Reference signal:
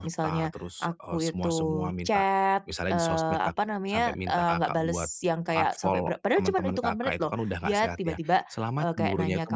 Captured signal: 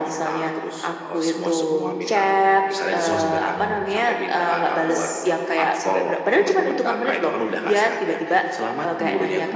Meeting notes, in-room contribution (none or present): present